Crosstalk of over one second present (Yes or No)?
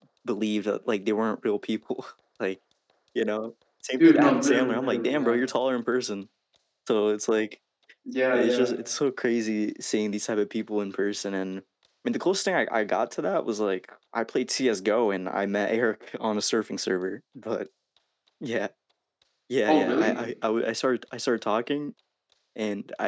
Yes